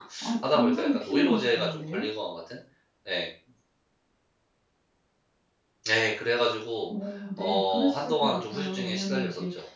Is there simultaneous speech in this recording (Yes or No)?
Yes